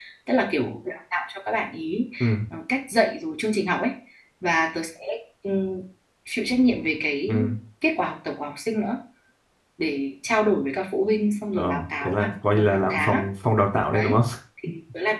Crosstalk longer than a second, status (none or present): present